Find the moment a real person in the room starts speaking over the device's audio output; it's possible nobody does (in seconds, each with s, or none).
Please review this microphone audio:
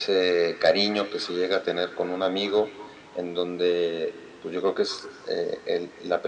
none